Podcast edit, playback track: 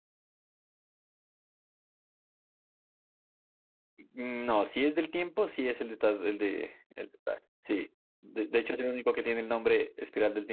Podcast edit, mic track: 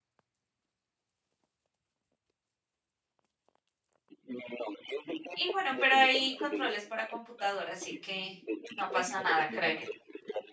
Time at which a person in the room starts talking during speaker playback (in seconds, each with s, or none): 5.3 s